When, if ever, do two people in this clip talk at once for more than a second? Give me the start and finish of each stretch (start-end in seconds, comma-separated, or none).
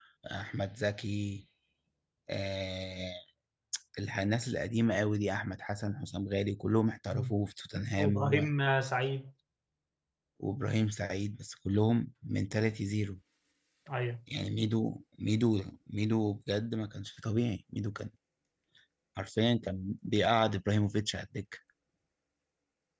none